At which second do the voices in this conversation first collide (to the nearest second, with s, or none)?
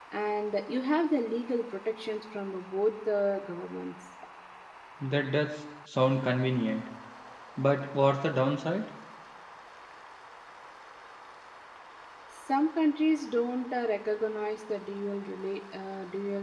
none